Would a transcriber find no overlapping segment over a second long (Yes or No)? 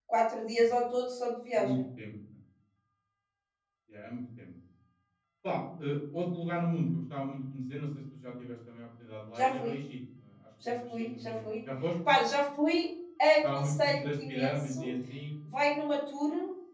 No